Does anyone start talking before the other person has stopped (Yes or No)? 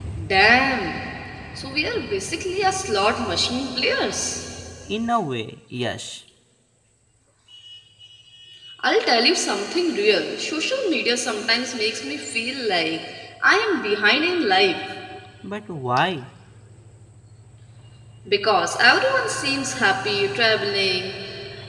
No